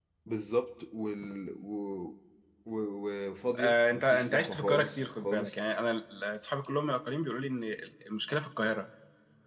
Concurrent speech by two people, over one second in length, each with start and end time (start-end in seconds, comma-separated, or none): 3.6-5.6